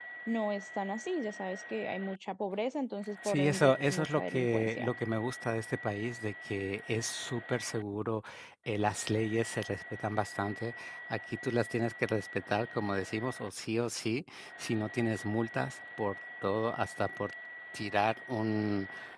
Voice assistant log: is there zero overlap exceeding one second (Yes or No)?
No